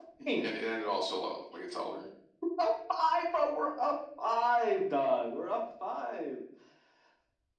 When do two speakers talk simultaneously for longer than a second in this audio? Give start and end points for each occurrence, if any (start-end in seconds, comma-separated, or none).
none